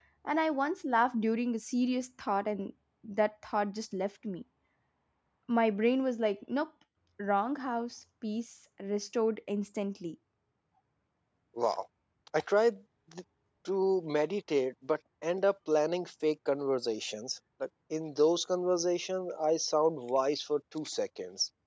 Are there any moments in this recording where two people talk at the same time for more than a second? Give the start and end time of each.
none

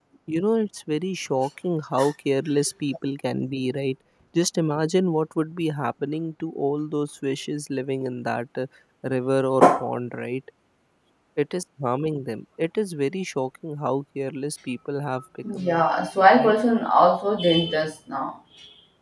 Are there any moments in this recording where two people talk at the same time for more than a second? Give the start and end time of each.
none

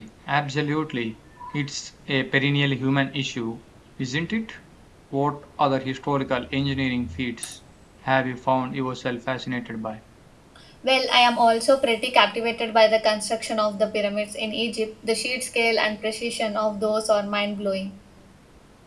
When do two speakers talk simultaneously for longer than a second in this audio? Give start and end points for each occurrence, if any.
none

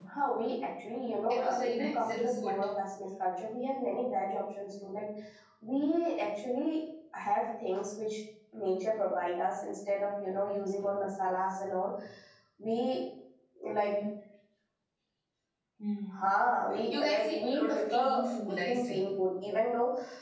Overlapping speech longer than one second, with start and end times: 1.3-2.6, 16.9-19.1

